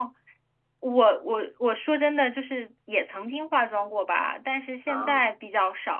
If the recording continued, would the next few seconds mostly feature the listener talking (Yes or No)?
No